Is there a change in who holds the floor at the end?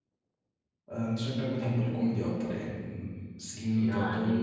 Yes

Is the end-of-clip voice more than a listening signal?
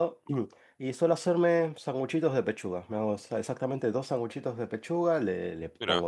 No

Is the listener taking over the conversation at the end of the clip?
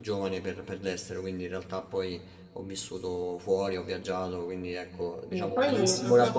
Yes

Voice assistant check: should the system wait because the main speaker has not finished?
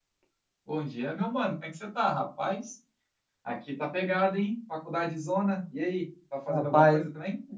No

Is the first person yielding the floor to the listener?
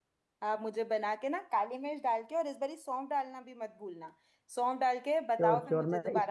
Yes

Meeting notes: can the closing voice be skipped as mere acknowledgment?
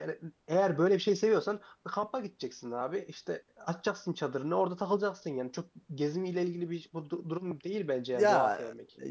No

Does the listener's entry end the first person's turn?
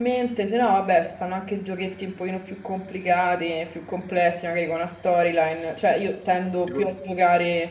No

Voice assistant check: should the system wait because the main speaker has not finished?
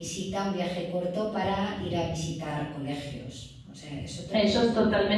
No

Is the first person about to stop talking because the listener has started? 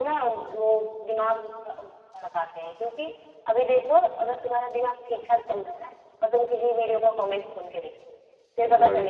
No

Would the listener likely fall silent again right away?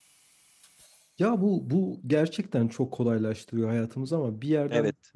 Yes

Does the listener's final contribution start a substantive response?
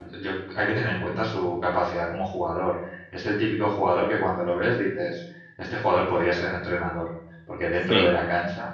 No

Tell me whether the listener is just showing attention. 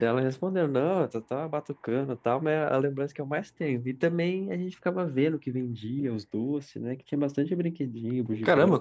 No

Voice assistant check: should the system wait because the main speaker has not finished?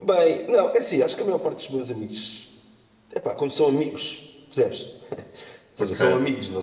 Yes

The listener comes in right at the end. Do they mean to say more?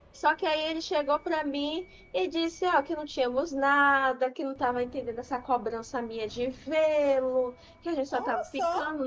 No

